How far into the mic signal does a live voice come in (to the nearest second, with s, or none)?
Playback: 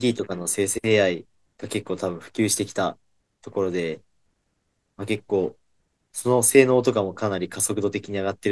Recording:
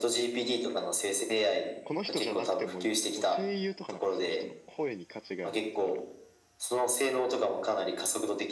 2 s